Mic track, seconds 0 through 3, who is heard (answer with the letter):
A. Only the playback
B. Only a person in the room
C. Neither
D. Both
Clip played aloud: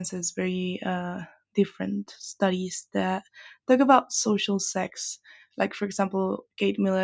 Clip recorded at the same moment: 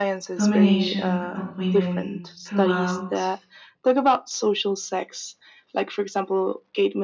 D